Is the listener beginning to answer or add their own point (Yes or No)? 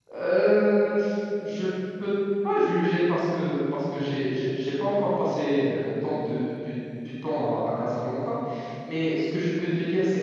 No